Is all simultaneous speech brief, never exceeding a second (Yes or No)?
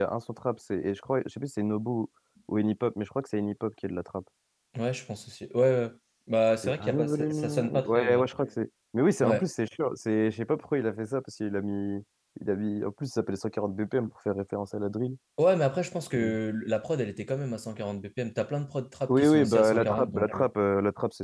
No